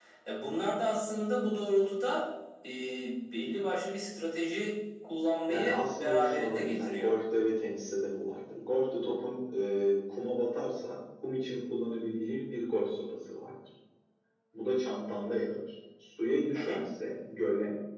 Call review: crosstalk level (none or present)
present